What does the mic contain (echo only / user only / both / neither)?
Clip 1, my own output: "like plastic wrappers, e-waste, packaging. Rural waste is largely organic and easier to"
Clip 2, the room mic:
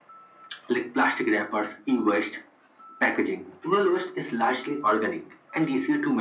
echo only